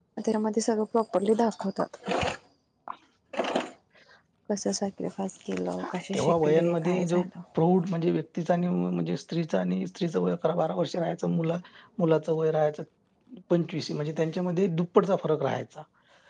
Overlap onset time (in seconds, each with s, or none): 5.8 s